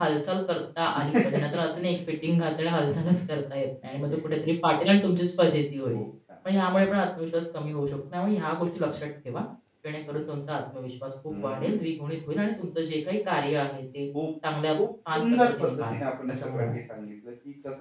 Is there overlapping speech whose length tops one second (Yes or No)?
Yes